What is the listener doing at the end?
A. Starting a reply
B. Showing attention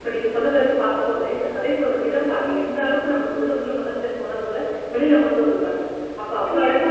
B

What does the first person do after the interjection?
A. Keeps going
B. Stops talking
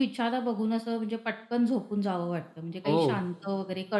A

